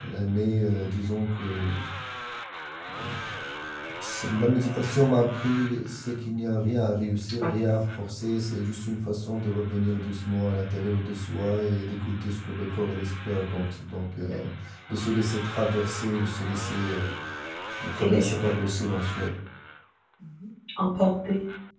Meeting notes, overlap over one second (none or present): none